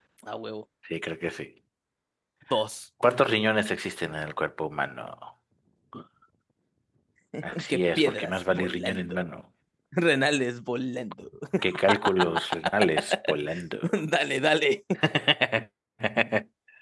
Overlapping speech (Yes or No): Yes